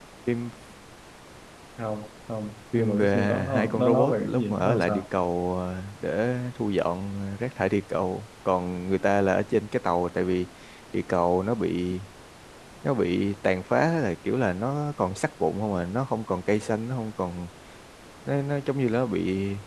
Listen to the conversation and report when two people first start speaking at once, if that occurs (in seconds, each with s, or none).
2.7 s